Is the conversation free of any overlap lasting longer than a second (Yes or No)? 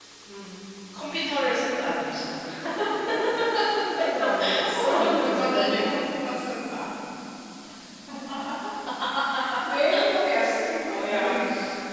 No